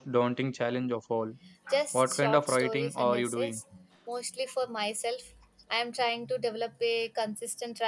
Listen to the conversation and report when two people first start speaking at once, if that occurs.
1.9 s

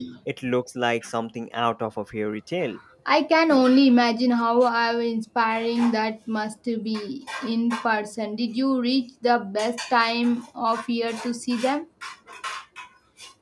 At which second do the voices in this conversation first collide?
none

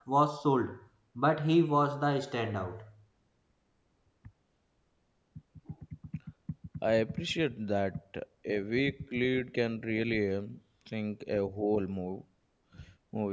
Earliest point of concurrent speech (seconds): none

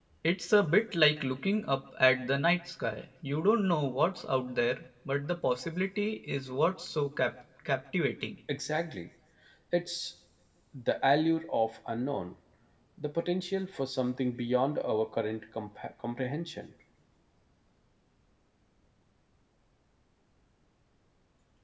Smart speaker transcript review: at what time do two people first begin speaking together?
none

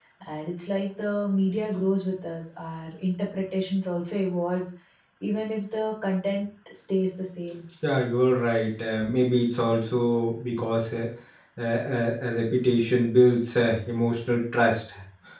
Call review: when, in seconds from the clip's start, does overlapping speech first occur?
none

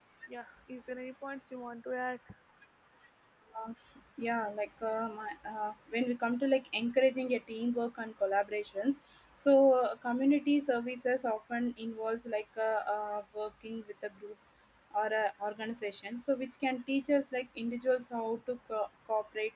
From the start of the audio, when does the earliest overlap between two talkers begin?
none

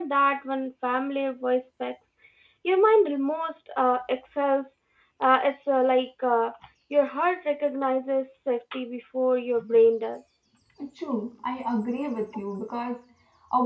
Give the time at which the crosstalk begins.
none

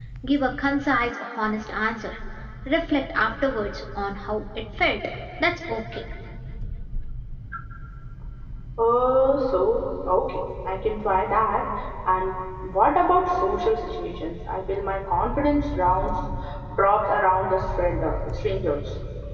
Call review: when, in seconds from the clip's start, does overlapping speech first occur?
none

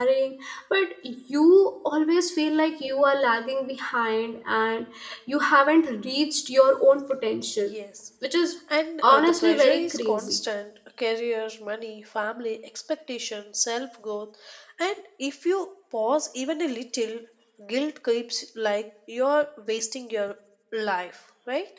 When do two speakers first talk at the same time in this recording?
9.0 s

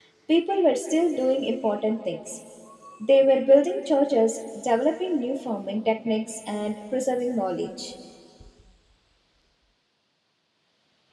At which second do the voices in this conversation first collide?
none

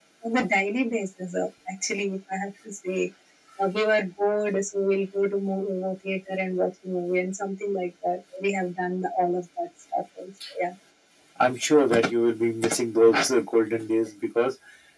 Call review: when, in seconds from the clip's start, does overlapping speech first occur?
none

